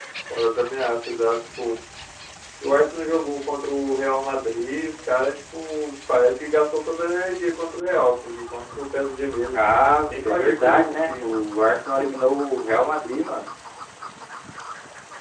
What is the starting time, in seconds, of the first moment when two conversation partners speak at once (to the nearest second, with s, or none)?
9 s